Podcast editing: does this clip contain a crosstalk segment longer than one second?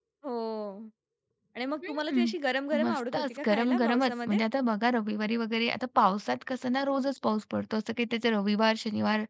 Yes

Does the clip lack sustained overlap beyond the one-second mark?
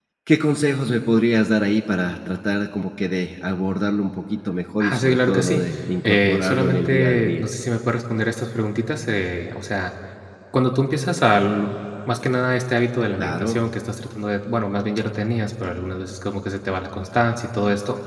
No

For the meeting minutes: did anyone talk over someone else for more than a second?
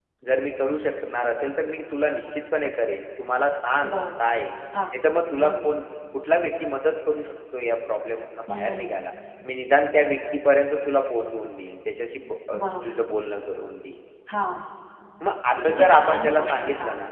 Yes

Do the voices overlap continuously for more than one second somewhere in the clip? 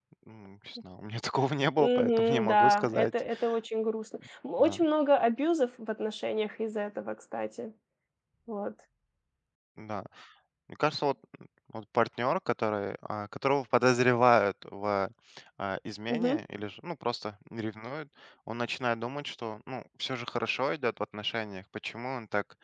Yes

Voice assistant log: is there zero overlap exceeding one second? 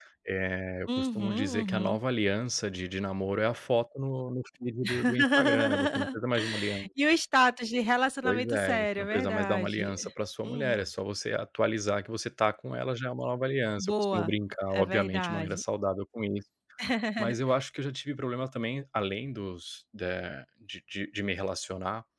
No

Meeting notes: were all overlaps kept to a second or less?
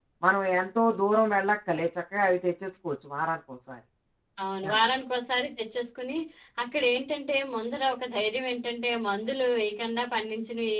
Yes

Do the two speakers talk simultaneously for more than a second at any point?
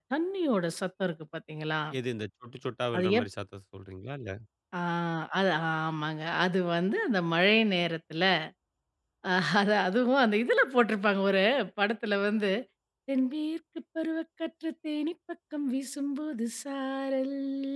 No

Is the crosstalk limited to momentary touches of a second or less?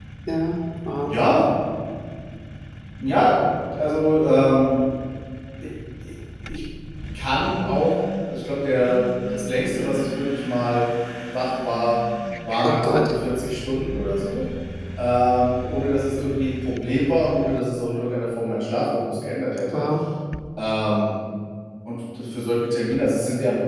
Yes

